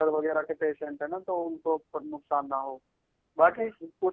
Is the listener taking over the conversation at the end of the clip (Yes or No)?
No